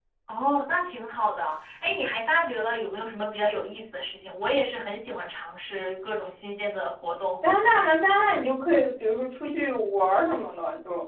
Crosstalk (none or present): none